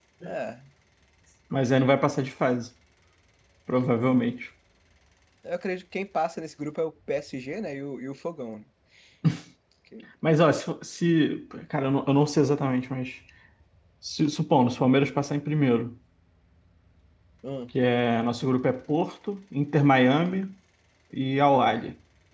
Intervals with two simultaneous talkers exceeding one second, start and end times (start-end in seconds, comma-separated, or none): none